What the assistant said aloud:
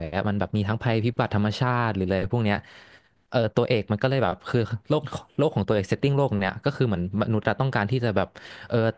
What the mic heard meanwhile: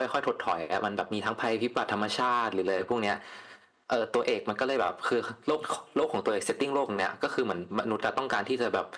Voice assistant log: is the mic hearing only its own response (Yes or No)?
Yes